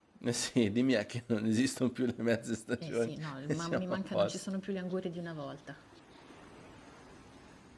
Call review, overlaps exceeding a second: present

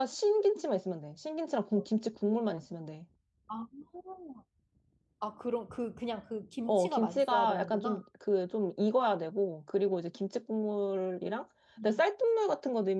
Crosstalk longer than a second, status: present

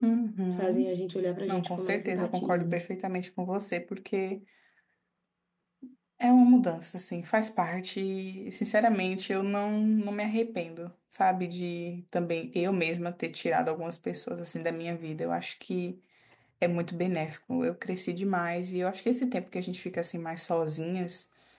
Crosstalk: present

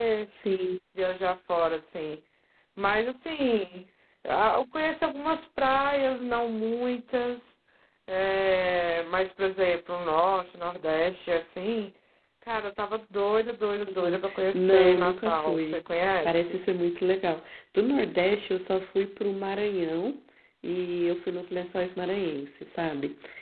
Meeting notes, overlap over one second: present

